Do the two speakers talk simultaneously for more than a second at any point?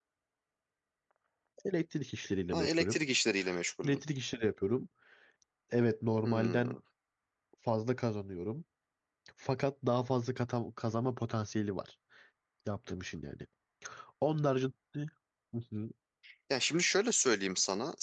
No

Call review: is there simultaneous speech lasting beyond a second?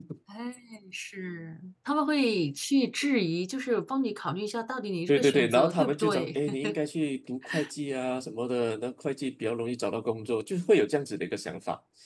Yes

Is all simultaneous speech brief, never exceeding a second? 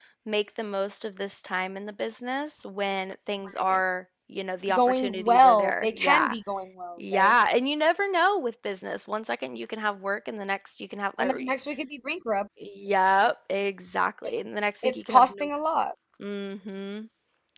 No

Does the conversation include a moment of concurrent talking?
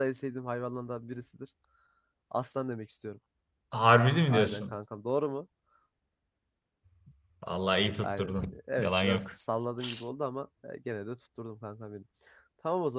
Yes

